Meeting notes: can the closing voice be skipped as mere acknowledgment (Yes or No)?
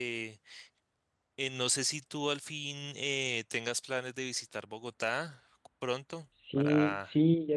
No